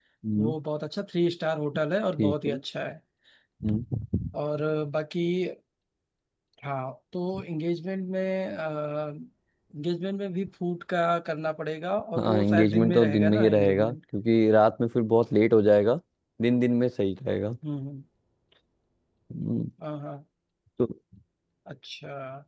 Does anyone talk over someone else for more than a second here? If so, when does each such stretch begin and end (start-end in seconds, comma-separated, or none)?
12.2-13.9